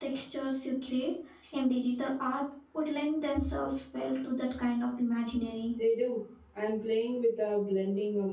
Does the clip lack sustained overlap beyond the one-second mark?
Yes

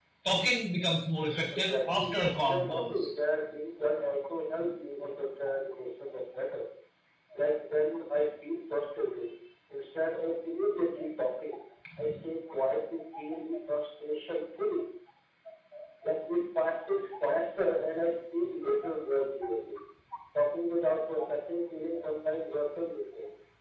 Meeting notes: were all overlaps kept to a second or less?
No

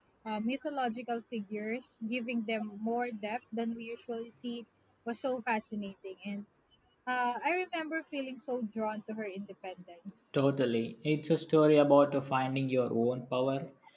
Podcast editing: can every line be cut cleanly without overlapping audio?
Yes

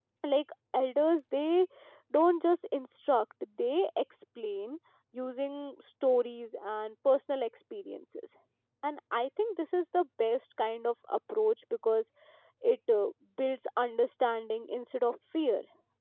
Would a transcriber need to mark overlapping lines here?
No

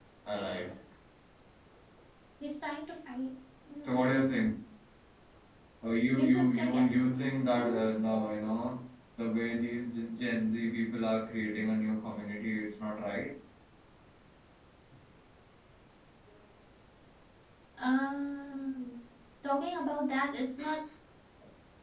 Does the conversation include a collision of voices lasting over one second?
Yes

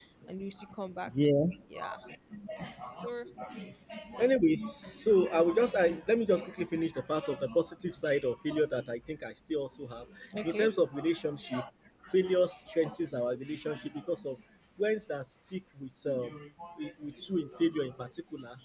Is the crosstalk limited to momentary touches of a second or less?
Yes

